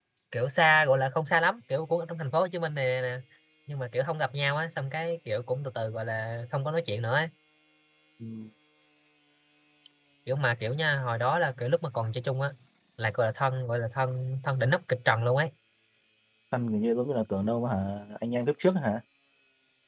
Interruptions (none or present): none